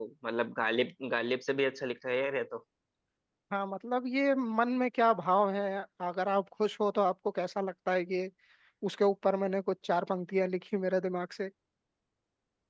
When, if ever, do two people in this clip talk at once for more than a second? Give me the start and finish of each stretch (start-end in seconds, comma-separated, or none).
none